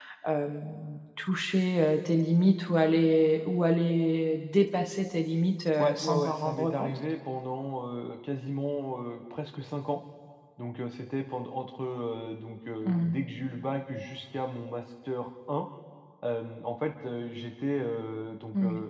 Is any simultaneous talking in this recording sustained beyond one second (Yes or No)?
Yes